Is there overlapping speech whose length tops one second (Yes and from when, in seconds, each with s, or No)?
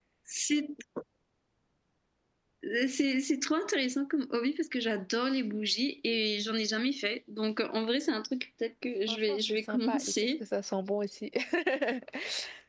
Yes, from 9.1 s